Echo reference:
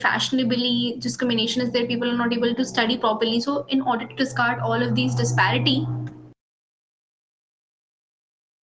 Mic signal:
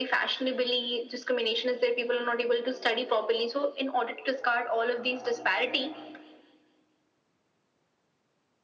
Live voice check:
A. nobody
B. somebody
A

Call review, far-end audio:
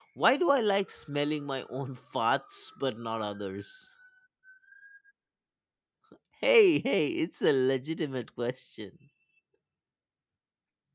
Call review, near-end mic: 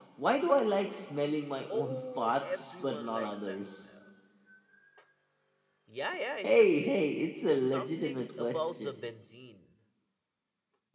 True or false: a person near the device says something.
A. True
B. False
A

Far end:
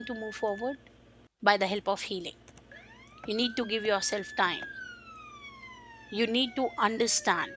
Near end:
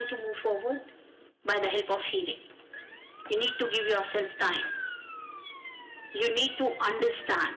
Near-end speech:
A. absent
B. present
A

